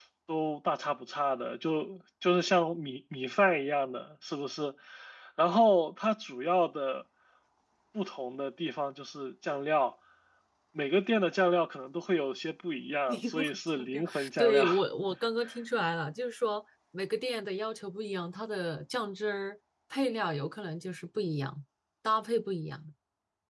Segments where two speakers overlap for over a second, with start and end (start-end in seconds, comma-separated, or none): 13.1-14.6